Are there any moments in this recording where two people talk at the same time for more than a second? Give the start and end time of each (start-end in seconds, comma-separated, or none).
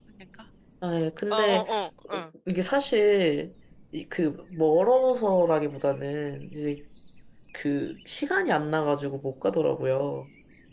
none